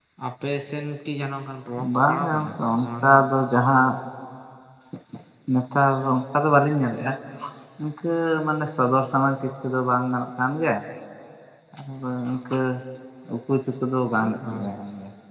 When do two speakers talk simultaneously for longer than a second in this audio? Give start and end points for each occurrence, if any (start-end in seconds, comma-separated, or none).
1.9-3.2